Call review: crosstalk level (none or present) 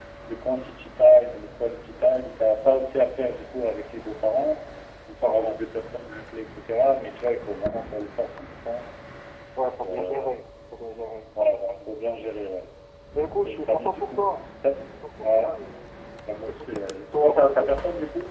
present